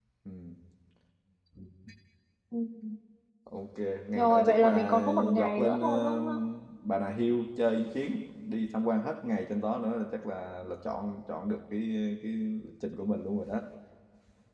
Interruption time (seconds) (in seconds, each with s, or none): 4.2 s